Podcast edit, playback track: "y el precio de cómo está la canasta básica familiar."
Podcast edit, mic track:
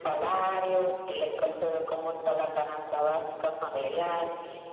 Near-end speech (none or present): none